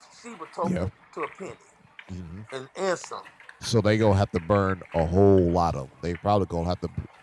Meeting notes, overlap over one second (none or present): none